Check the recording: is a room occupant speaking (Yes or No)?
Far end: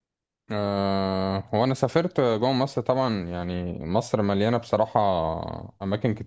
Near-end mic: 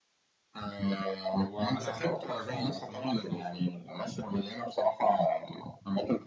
Yes